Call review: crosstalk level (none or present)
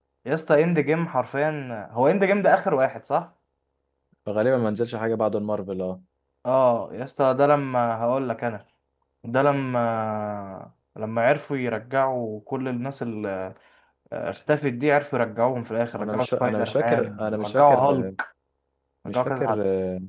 present